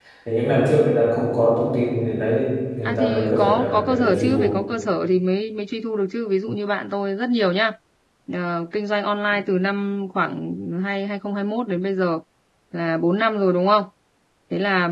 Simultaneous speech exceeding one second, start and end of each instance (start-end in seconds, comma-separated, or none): 2.9-4.6